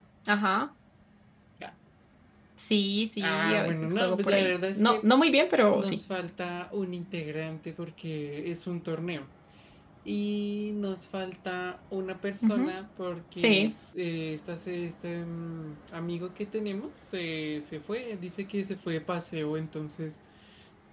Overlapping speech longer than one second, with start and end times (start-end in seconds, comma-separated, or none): 3.2-5.1